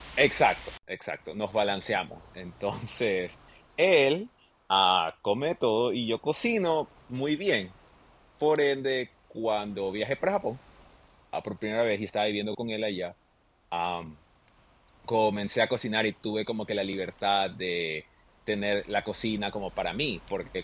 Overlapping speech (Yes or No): No